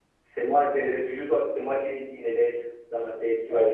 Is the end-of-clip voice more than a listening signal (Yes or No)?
Yes